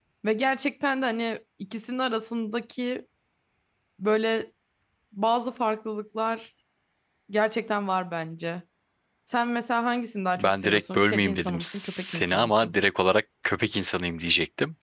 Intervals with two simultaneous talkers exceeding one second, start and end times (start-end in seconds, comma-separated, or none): 10.4-12.7